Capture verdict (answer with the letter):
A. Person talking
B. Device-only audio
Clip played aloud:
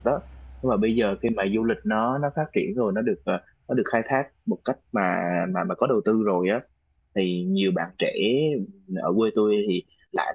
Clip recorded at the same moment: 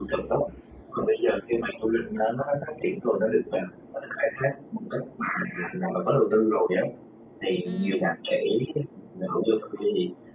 A